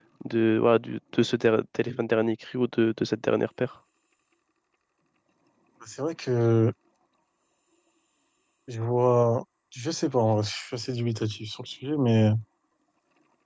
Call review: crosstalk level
none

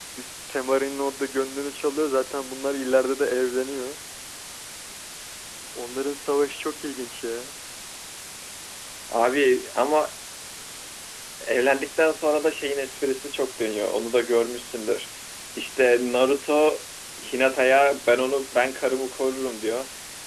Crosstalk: none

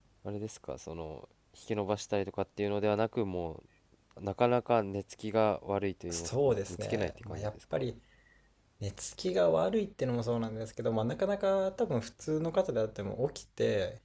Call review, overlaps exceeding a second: present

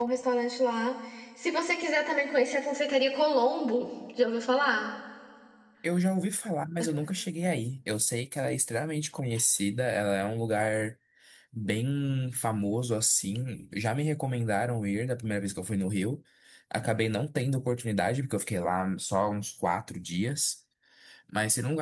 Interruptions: none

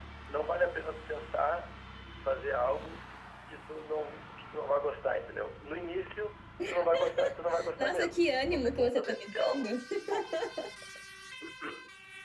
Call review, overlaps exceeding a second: present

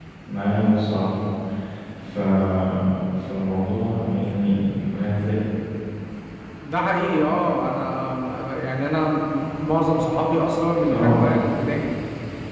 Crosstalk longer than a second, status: none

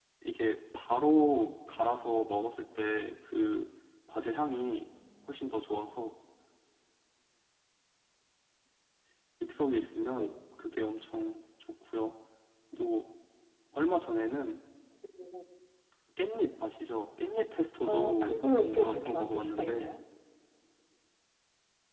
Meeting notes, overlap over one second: present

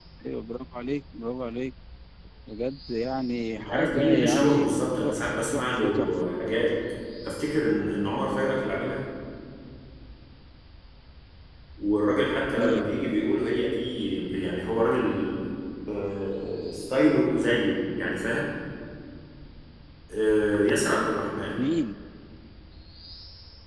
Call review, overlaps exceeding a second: present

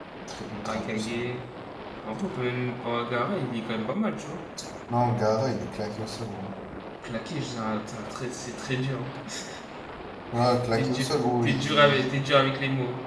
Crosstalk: present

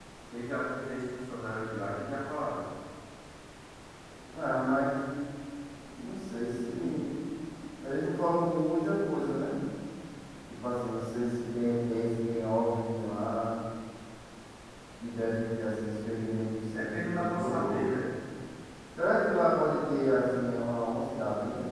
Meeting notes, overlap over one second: present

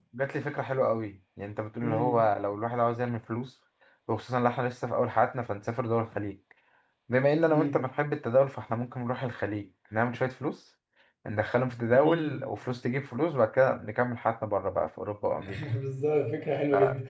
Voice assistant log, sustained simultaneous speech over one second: none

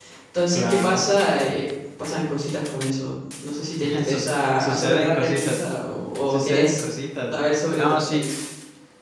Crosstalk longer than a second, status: present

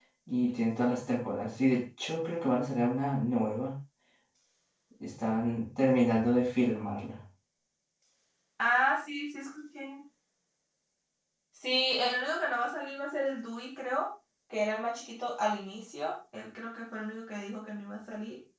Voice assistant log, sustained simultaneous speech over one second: none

